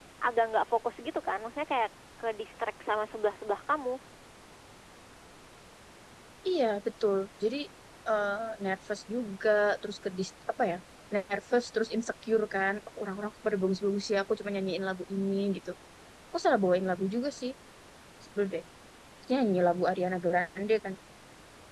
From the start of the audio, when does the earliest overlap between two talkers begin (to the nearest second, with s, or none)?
none